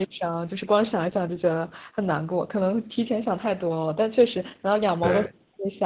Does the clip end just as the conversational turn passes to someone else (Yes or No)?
No